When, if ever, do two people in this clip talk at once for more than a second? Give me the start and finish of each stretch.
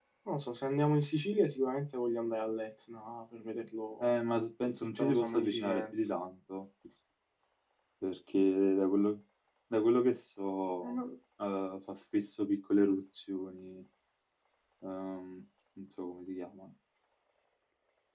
4.6-6.1

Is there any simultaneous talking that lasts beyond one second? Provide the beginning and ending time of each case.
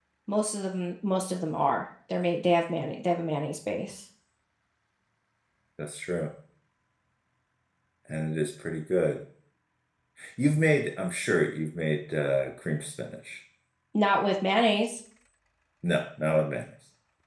none

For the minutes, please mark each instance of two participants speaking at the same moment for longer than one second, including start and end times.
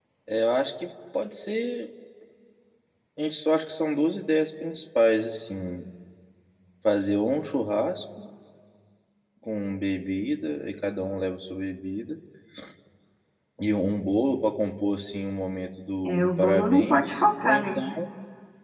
16.0-17.8

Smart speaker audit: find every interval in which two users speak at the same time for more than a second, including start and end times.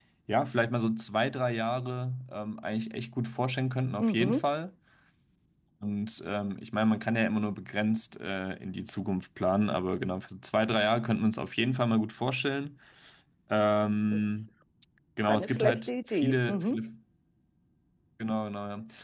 15.3-16.8

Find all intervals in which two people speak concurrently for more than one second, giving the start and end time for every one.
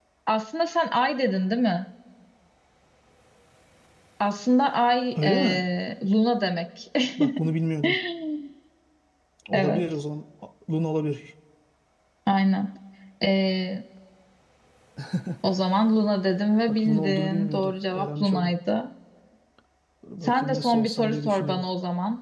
16.7-18.5, 20.2-21.6

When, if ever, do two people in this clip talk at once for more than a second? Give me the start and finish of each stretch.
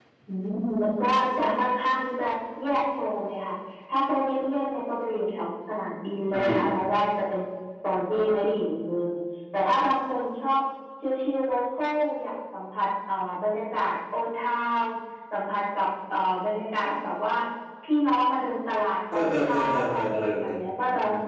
19.1-20.6

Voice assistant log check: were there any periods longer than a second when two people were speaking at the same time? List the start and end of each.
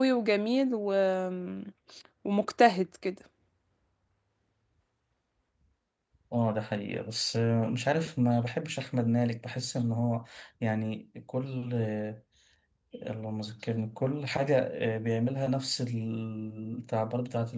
none

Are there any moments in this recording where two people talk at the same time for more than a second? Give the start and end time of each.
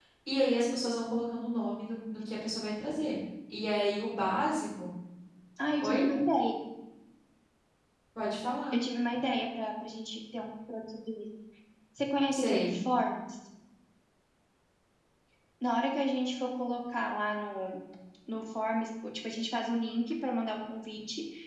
none

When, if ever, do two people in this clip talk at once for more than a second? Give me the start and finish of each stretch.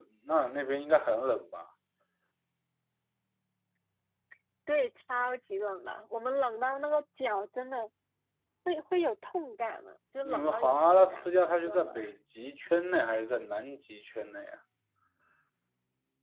10.2-11.9

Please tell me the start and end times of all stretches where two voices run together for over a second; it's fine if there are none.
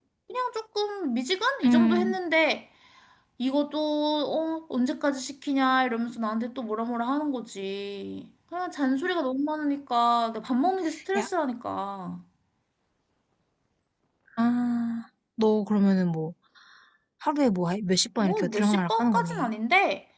18.2-19.5

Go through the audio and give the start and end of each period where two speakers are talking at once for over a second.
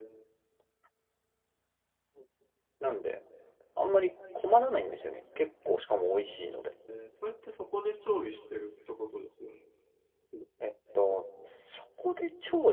none

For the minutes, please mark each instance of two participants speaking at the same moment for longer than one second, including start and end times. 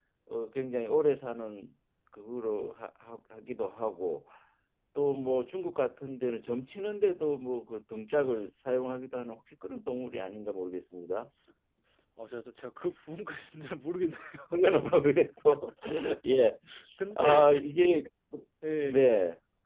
none

